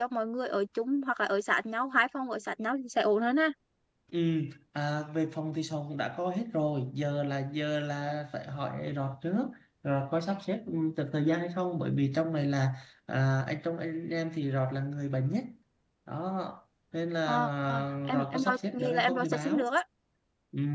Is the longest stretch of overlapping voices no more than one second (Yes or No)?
No